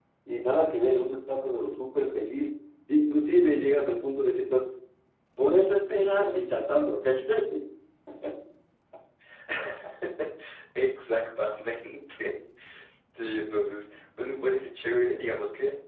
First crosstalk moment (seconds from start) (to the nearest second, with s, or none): none